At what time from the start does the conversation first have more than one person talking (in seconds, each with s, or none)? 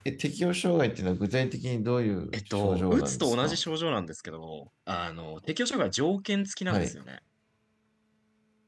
2.3 s